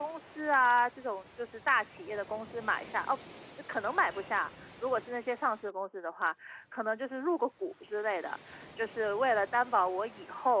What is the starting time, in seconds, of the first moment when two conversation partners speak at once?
none

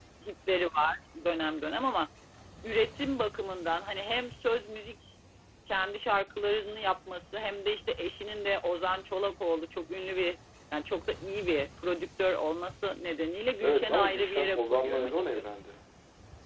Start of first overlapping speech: 13.6 s

